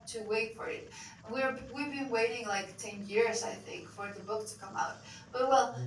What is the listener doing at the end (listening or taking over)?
listening